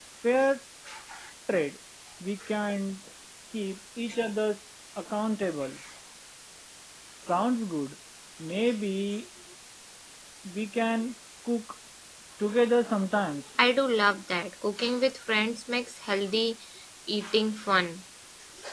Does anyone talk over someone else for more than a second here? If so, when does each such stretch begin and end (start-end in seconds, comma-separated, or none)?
none